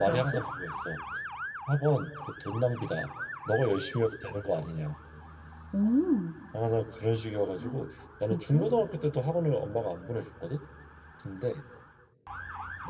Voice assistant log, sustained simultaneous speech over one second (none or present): none